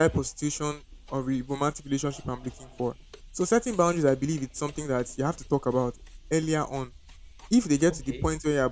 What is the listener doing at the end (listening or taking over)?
listening